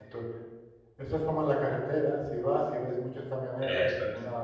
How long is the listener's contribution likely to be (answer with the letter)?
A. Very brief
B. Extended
A